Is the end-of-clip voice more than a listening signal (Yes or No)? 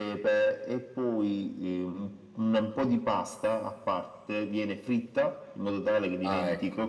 No